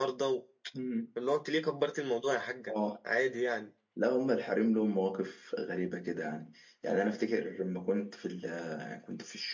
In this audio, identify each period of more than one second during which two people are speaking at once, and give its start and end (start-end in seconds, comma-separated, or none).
none